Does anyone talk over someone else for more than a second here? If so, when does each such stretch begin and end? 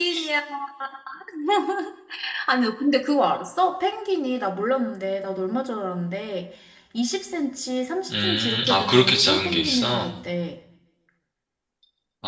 8.1-10.1

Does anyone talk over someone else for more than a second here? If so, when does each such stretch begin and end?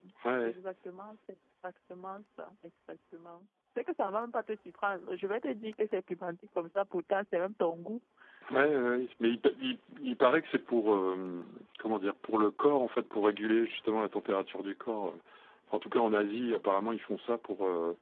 none

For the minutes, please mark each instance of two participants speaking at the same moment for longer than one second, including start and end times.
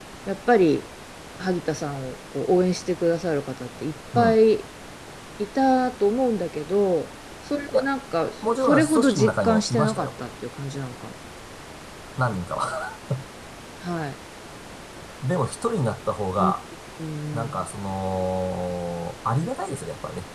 8.4-10.1

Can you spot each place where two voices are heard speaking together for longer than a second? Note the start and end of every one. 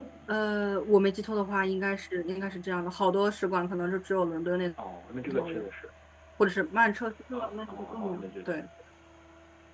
7.3-8.7

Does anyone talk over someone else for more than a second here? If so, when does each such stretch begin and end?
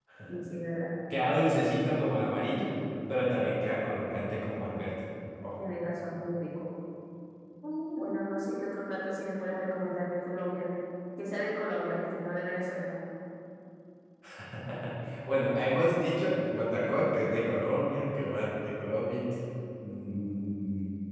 none

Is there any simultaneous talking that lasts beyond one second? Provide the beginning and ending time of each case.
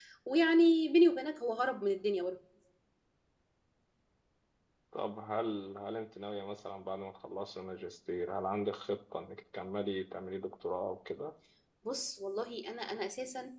none

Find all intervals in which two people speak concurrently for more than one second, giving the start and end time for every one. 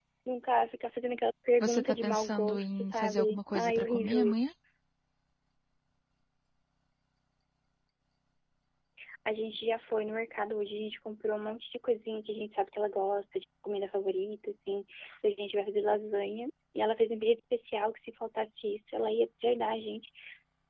1.6-4.4

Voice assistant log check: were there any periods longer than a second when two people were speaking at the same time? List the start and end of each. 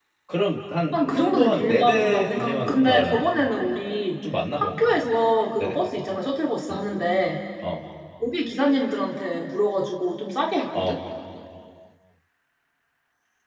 0.9-3.2

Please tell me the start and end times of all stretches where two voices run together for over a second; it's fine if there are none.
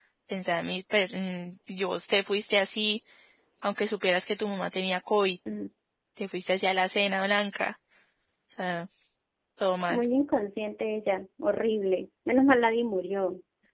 none

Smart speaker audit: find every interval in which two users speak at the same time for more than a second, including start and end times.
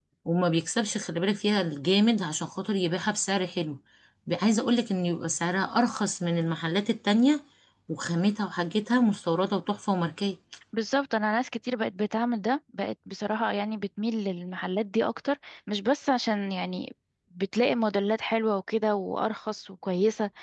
none

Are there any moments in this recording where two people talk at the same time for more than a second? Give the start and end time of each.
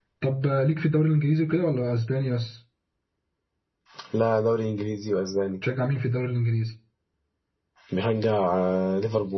none

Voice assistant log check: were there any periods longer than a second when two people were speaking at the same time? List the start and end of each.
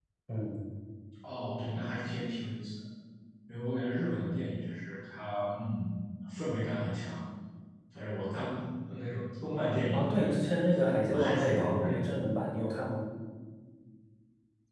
9.9-12.1

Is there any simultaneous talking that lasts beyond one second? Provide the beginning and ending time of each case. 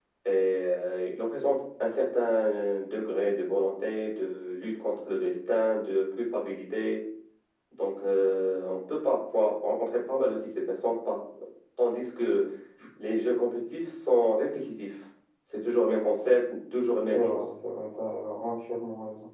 none

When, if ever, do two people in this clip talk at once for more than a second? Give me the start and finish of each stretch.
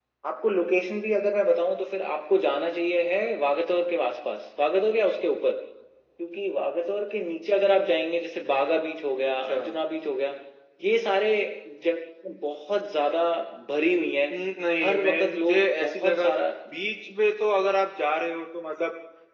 14.8-16.3

